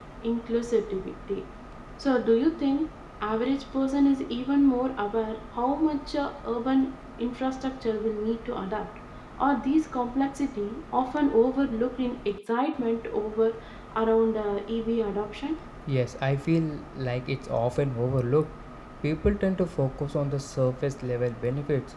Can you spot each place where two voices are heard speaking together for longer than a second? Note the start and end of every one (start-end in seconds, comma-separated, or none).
none